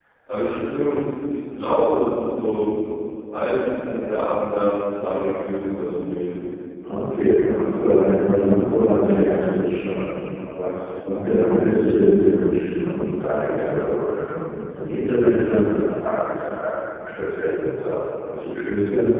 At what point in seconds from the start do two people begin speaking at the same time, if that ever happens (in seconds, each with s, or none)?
none